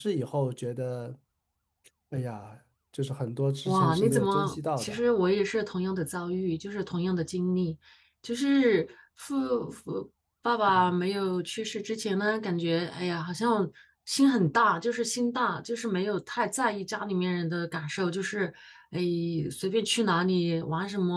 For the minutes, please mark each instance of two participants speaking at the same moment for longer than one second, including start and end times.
3.6-5.0

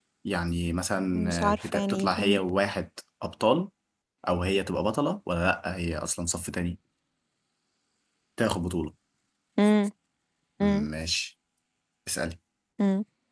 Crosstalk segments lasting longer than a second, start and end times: 1.1-2.4

